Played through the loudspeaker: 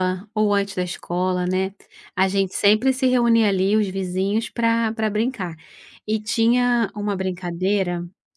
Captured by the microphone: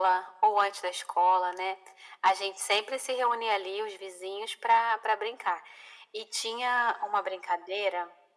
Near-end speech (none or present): none